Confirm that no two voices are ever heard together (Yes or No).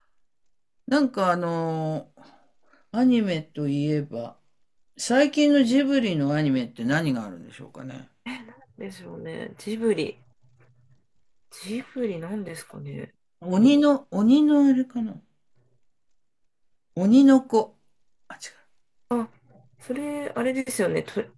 Yes